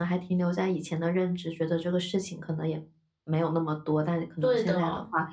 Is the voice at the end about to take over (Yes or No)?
No